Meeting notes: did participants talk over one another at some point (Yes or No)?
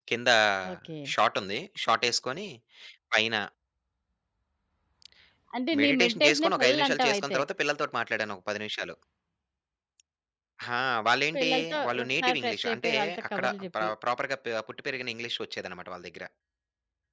Yes